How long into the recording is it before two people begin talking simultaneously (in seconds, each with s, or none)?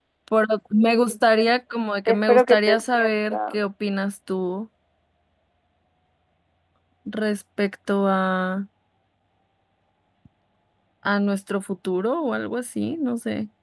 2.1 s